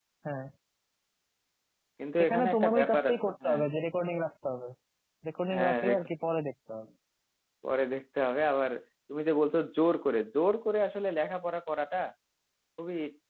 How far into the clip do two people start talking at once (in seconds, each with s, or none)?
2.2 s